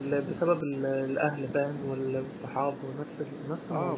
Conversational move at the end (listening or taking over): taking over